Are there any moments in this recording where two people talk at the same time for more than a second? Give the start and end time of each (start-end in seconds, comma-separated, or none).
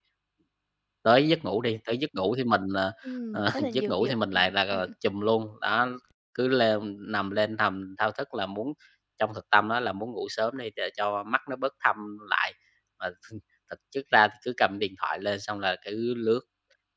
3.3-4.9